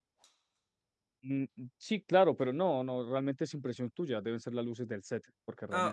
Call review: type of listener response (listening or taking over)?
taking over